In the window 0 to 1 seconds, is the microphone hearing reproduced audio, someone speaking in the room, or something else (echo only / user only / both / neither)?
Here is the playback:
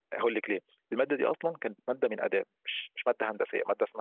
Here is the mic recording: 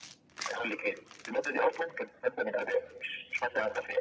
echo only